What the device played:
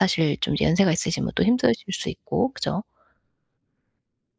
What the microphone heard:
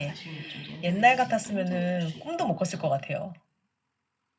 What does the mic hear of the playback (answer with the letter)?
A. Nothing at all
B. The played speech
B